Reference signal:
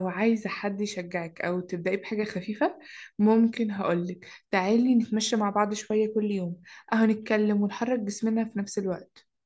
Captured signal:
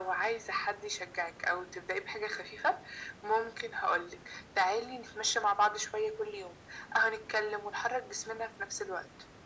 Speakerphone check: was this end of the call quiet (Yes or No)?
Yes